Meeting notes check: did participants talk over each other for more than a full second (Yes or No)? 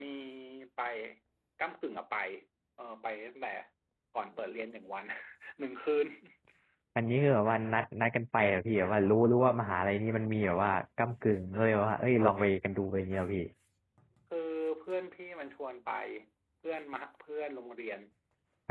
No